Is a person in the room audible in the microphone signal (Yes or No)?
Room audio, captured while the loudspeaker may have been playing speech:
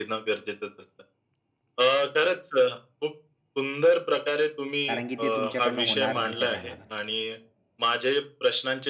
Yes